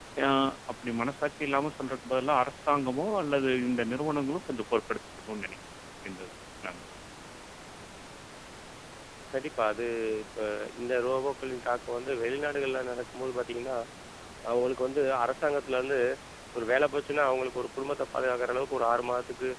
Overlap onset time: none

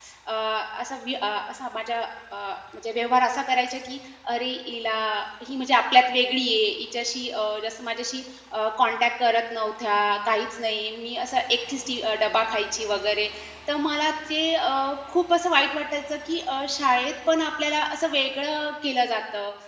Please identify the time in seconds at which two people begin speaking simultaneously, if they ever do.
none

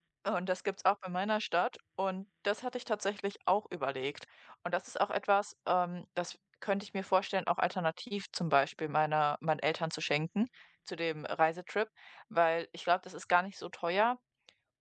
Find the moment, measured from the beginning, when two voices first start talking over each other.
none

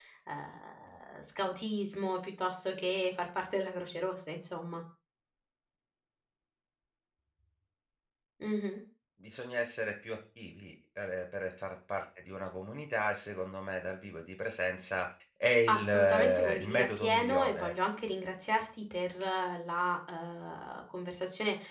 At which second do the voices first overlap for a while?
15.7 s

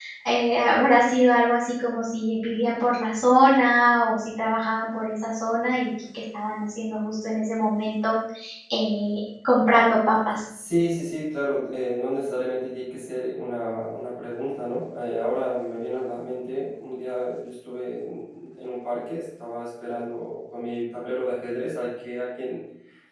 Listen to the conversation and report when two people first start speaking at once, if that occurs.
none

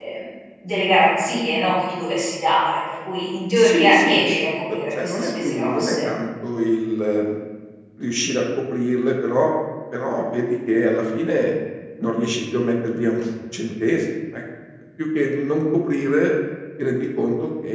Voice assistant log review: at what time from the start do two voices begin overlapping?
3.5 s

